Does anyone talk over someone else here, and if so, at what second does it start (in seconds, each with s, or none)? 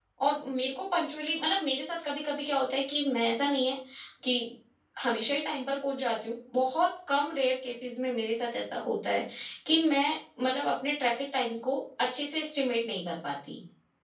none